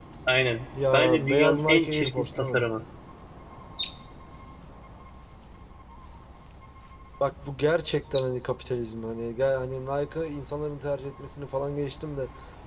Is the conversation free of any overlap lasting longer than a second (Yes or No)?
No